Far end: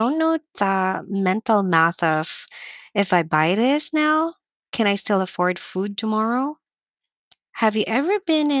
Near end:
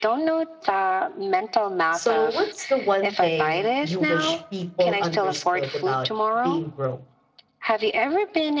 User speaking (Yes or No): Yes